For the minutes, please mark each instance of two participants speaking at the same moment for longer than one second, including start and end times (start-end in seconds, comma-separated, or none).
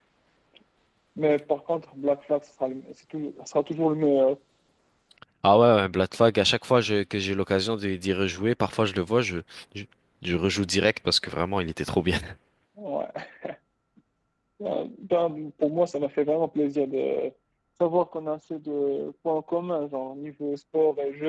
none